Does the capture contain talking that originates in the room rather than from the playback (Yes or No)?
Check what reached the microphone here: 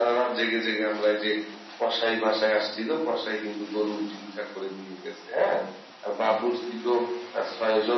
No